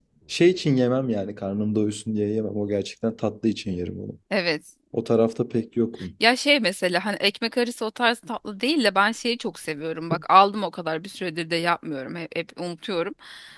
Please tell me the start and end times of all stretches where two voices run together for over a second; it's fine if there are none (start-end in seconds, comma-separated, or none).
none